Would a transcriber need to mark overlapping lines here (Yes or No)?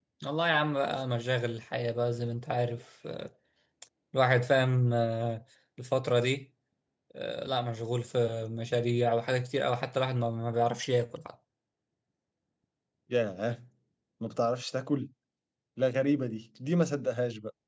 No